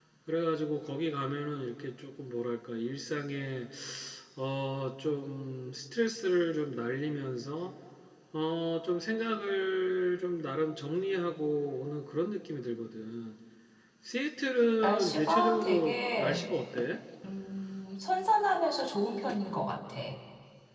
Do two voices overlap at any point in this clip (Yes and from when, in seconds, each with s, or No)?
Yes, from 14.8 s